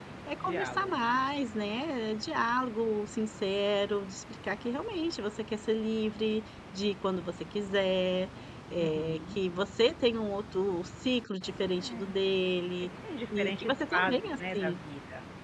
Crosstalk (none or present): present